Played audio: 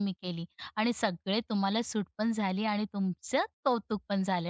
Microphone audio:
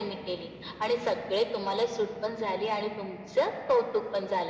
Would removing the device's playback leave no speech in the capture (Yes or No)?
Yes